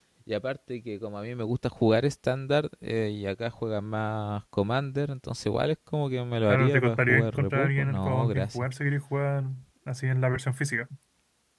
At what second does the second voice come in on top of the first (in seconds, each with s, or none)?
6.5 s